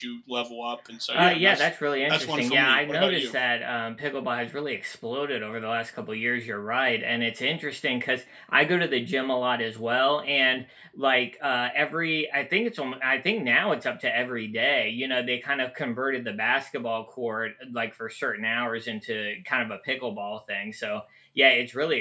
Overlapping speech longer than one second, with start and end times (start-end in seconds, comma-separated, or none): 2.1-3.3